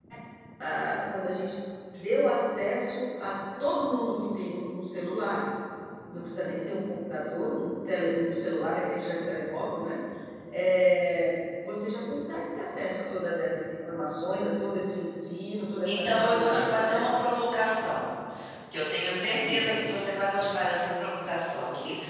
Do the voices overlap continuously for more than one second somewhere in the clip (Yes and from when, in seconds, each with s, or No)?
Yes, from 15.8 s